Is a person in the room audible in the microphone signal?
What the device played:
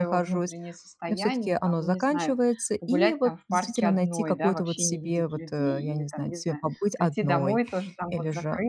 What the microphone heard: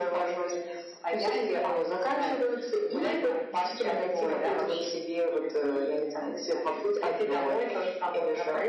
No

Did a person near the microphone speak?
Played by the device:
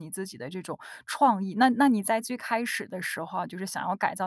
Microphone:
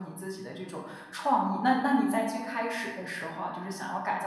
No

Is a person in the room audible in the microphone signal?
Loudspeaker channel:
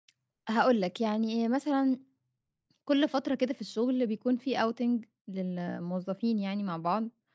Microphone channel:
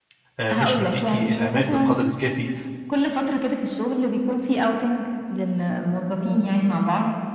Yes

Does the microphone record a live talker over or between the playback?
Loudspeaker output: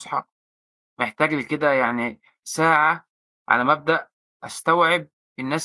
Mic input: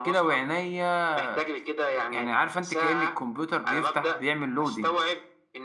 Yes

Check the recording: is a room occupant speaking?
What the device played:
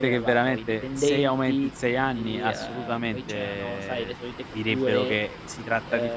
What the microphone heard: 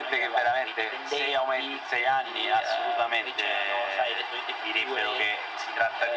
No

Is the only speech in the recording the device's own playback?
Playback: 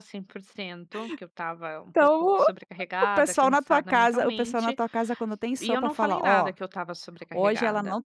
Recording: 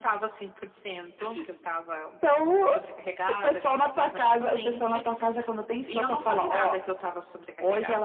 Yes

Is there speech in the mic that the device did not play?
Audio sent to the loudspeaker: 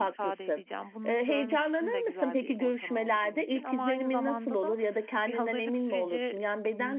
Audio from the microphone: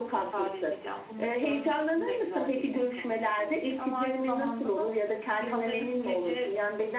No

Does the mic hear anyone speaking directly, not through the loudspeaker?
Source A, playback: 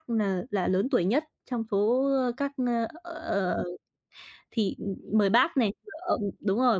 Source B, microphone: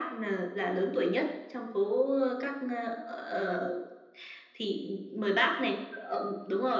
No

